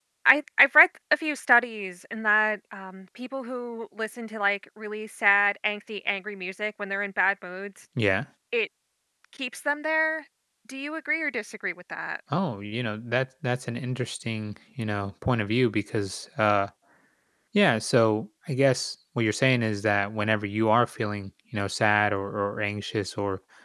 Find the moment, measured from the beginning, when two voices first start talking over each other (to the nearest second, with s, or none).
none